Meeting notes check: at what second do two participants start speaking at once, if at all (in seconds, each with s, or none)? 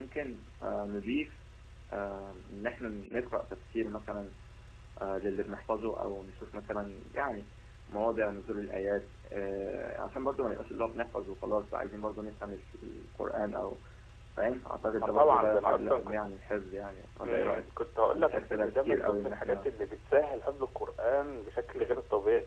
14.9 s